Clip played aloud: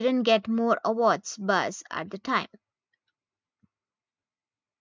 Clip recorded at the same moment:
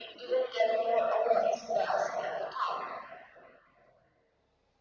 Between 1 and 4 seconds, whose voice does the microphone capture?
echo only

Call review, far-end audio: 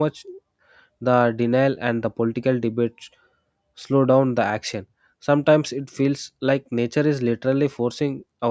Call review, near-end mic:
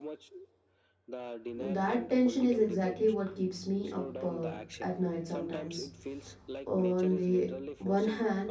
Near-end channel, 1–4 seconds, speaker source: both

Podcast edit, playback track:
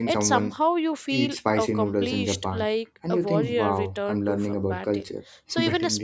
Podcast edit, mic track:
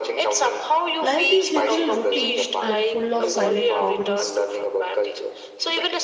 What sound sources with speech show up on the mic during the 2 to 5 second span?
both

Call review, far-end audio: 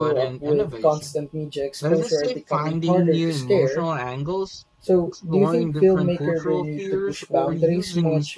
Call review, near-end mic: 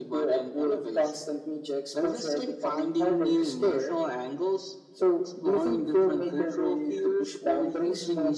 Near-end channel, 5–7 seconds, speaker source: echo only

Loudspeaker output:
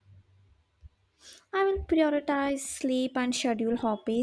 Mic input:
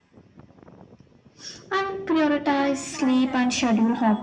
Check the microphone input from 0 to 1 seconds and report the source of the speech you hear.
neither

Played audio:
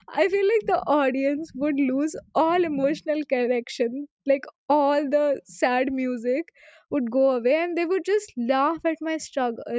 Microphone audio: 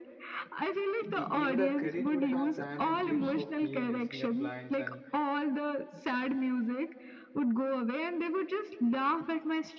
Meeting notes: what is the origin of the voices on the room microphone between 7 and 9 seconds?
echo only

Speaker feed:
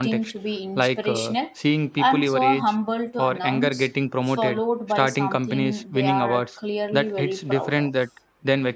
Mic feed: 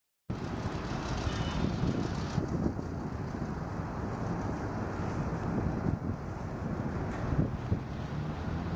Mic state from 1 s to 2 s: neither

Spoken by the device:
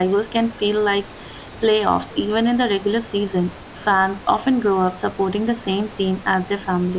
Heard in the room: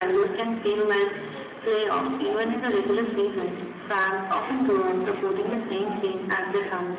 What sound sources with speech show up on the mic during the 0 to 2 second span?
both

